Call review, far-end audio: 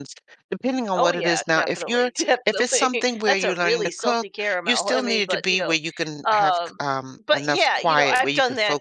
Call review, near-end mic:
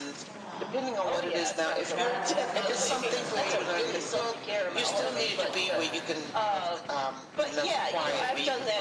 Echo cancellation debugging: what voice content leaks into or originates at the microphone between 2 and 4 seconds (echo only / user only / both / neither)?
both